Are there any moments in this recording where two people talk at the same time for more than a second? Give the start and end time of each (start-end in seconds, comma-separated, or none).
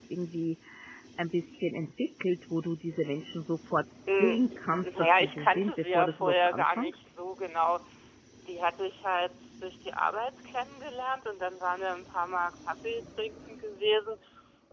4.8-6.9